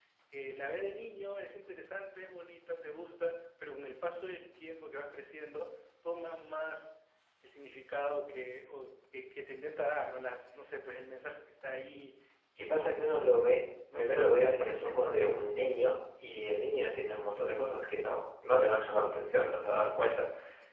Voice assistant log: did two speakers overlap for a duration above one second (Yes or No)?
Yes